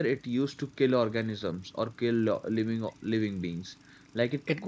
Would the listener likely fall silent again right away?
No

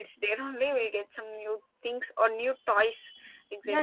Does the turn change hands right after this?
Yes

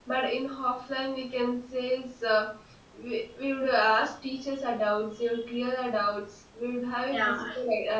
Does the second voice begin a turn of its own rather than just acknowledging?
No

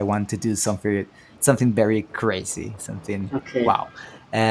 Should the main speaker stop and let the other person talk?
No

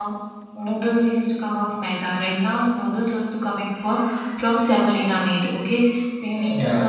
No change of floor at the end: Yes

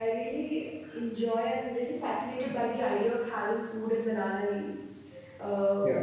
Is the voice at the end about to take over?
No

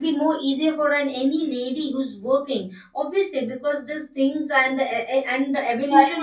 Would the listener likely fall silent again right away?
No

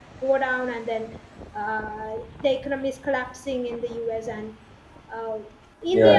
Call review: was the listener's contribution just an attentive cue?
Yes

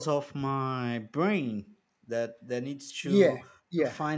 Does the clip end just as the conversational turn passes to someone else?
Yes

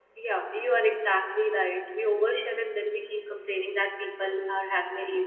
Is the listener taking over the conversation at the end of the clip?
No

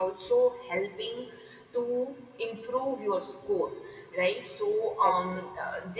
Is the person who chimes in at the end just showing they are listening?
Yes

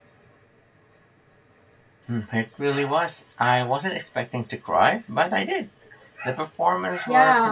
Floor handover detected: Yes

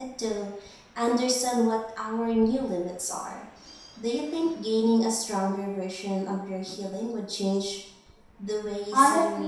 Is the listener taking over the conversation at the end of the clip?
Yes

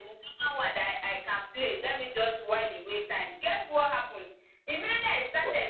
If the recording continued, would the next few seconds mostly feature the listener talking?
No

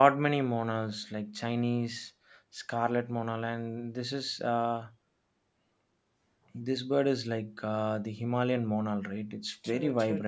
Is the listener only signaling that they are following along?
No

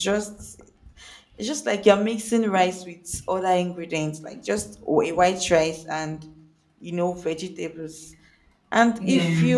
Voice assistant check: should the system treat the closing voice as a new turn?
No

